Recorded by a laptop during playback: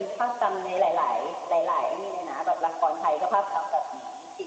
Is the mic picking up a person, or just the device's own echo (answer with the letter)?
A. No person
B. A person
A